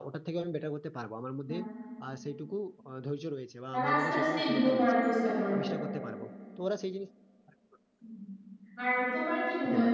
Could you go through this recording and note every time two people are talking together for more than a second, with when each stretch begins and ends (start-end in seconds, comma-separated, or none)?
3.7-4.9